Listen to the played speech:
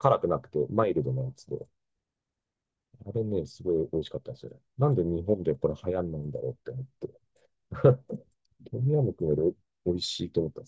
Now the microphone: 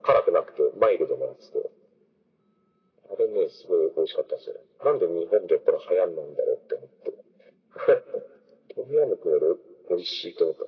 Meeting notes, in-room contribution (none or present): none